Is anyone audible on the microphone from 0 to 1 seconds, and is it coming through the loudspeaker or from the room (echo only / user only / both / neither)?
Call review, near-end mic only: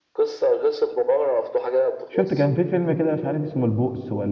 echo only